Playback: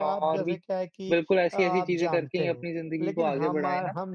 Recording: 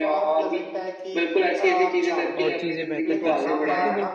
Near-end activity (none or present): present